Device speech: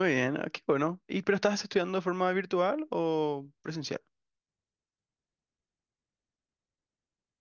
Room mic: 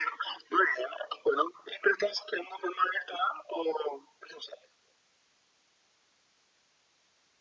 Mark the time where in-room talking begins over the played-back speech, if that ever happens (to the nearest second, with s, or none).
none